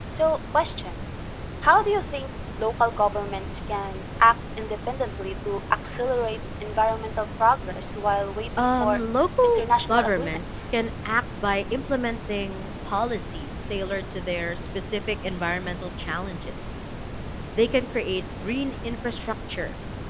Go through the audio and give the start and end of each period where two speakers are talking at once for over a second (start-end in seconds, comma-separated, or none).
9.4-10.7